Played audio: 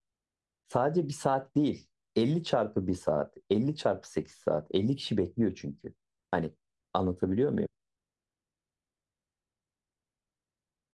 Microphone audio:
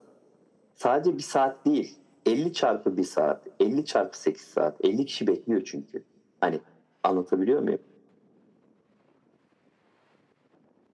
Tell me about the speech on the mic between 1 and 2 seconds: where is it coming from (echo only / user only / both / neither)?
echo only